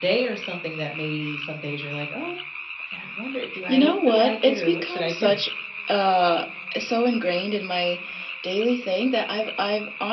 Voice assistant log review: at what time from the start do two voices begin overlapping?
4 s

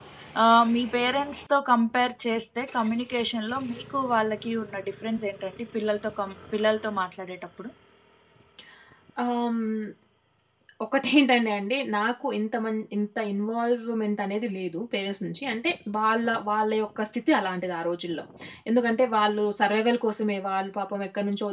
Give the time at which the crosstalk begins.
none

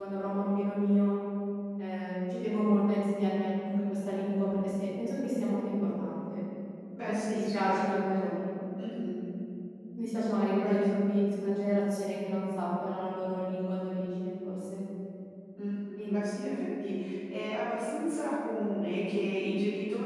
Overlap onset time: 7 s

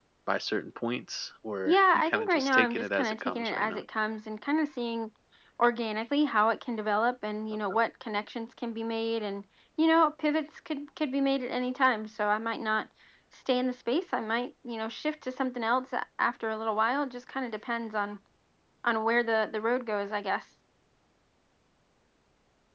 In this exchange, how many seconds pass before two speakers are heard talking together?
2 s

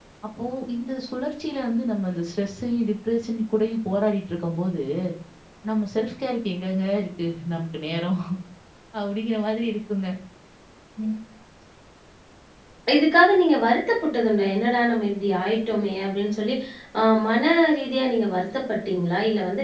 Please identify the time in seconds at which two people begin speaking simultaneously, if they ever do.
none

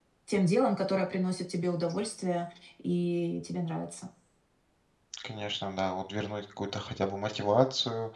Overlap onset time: none

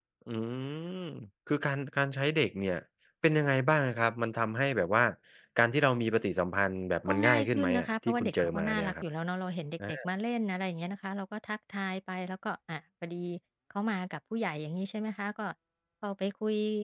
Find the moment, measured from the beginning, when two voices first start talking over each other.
7 s

